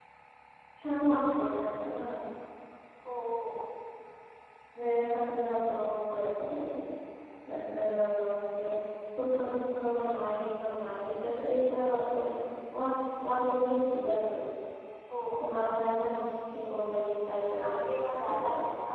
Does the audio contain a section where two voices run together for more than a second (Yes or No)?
No